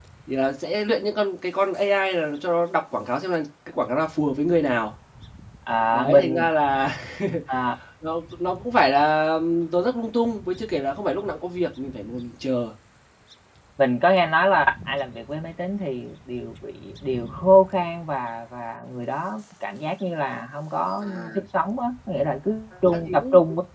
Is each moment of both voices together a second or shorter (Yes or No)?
Yes